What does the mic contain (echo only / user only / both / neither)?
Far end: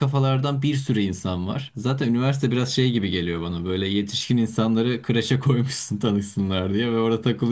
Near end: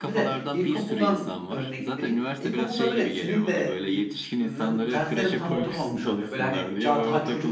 both